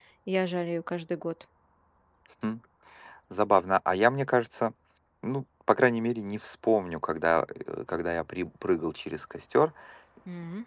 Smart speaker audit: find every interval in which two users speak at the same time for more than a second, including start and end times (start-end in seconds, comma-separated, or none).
none